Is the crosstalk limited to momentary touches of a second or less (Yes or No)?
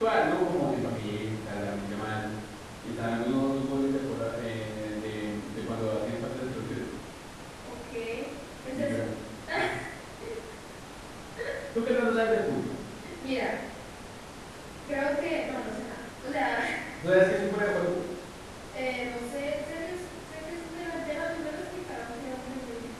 Yes